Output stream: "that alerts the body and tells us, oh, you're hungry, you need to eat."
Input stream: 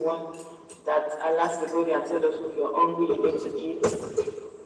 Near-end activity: none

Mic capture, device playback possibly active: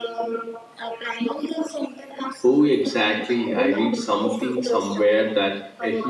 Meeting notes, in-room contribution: present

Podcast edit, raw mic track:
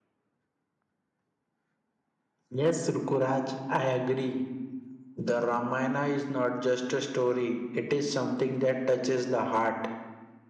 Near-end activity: present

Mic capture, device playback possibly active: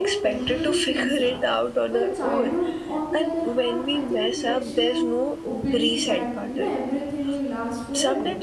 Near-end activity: present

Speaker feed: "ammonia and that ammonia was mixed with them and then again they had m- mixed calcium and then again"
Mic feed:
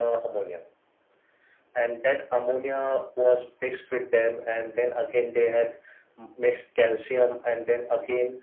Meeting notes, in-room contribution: none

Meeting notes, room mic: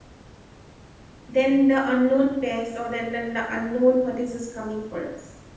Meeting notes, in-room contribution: present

